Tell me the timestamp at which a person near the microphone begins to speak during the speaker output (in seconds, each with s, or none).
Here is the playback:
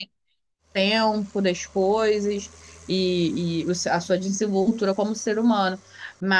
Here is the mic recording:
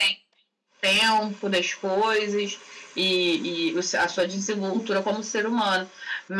none